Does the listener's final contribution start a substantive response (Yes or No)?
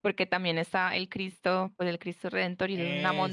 No